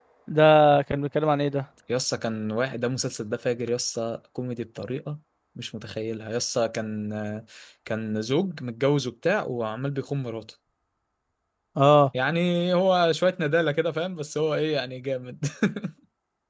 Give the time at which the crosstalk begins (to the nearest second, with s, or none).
none